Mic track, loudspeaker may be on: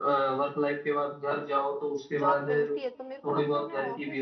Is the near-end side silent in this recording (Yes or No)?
No